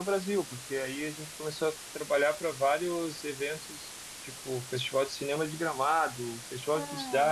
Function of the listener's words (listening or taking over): listening